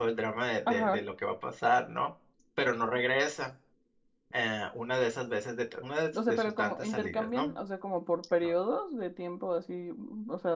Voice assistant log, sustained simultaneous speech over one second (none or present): present